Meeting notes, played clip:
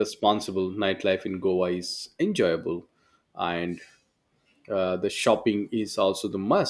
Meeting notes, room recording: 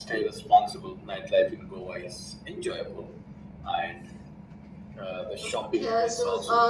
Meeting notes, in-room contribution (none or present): present